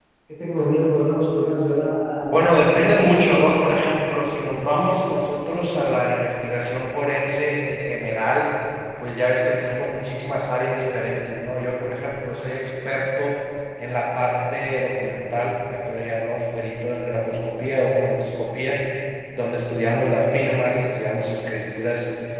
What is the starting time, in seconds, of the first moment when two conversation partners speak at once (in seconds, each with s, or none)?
2.3 s